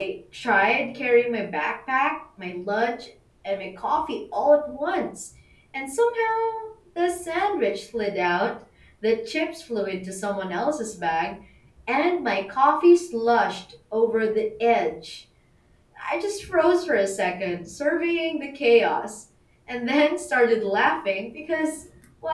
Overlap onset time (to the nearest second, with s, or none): none